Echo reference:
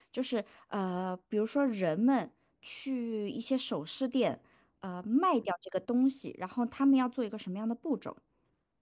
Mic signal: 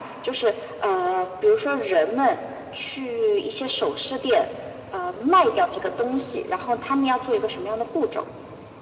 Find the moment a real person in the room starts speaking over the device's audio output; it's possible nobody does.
none

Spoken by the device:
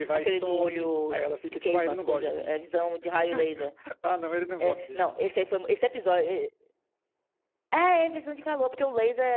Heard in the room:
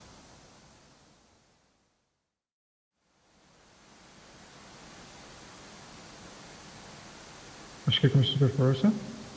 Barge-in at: 8 s

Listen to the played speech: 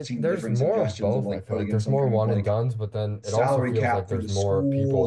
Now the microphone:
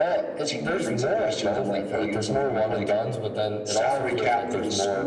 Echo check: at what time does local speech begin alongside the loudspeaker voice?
none

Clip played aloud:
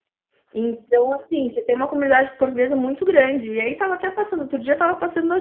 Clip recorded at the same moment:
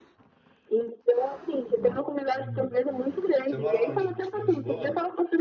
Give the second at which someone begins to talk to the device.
2 s

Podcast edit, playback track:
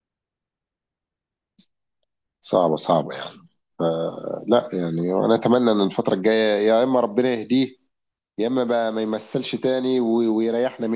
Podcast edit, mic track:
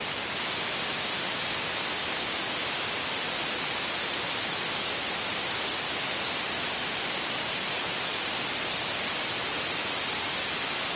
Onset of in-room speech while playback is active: none

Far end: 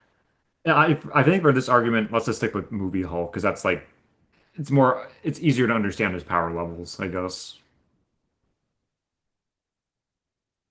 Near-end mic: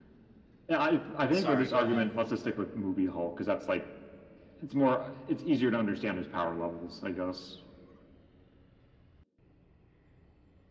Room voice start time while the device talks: 1 s

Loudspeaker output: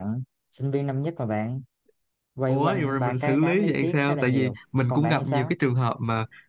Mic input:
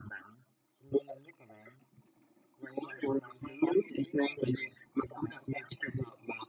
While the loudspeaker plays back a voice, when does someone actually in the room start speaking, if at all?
none

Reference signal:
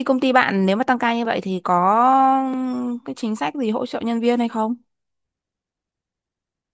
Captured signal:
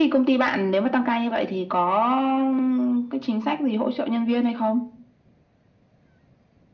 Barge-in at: none

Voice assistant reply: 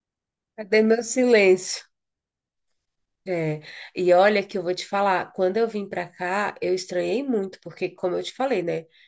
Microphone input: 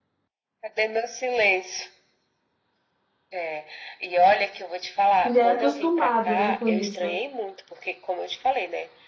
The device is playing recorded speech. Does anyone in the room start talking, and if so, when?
5 s

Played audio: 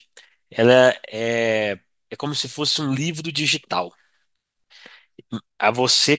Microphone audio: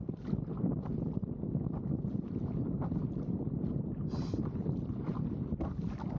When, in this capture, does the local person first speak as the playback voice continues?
none

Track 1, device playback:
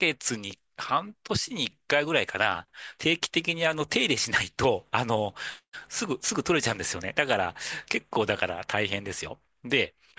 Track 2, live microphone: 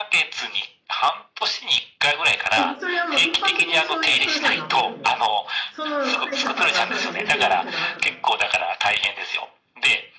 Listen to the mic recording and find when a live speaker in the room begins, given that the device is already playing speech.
3 s

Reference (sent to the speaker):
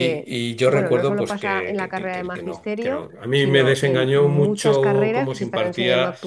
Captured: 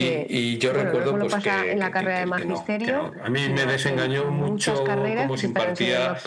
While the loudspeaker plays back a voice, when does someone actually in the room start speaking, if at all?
none

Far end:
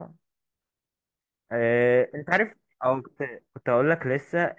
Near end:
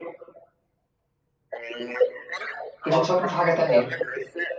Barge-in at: 3 s

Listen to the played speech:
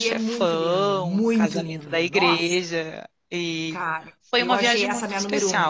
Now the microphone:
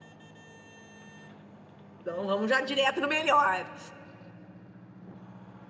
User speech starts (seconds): 2 s

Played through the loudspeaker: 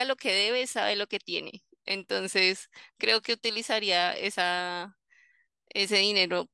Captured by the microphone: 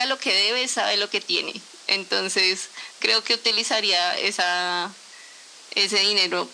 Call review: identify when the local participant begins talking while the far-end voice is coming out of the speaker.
none

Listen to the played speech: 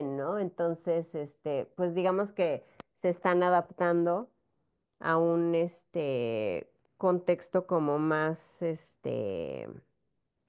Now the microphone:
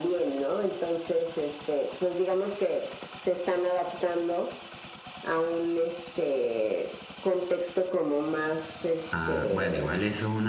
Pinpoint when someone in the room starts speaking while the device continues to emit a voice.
9 s

